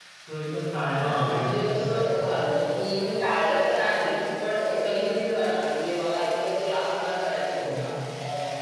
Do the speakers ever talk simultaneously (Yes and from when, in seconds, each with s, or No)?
Yes, from 0.9 s